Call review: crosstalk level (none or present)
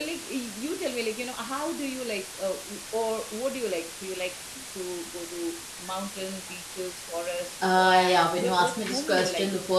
present